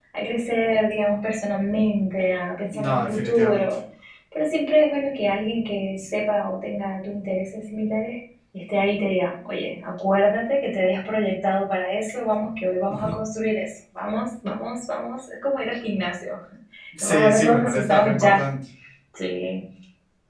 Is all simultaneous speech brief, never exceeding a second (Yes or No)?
No